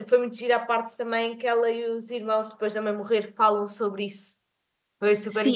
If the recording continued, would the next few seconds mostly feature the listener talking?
Yes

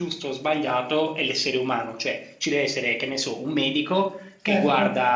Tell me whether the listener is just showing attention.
Yes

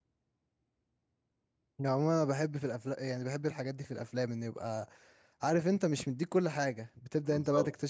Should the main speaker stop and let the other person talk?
No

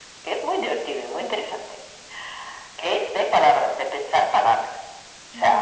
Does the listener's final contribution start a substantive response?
No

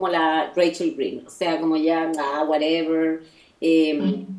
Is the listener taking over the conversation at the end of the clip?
No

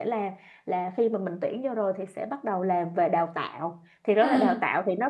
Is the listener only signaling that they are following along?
Yes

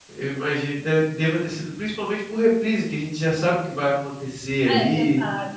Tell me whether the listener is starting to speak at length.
Yes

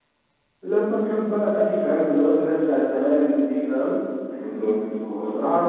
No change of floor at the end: No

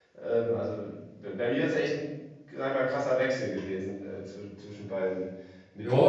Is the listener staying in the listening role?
No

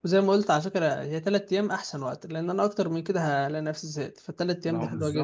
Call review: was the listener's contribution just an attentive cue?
No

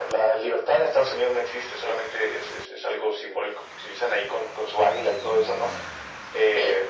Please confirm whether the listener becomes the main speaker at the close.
No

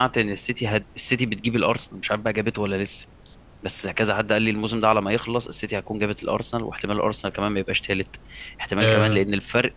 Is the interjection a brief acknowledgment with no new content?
Yes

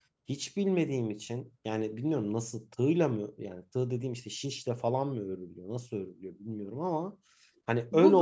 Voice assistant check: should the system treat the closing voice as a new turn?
Yes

